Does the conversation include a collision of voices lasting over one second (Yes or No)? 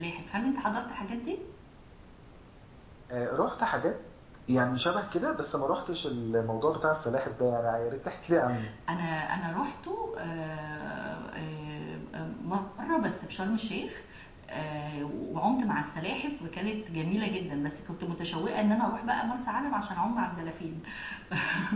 No